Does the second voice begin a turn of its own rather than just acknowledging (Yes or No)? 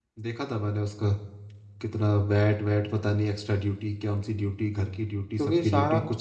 Yes